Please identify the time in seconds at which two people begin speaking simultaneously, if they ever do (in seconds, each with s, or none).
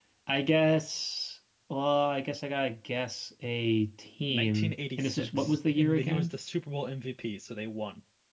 4.3 s